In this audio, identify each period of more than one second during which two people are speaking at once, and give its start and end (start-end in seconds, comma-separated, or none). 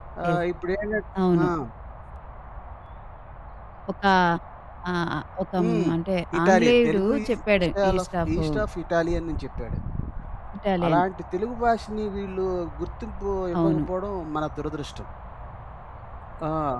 6.4-8.4